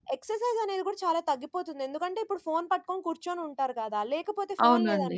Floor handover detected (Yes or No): No